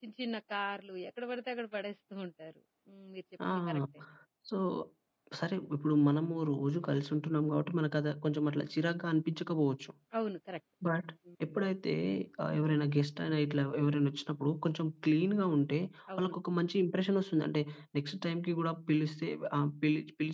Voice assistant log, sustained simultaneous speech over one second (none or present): none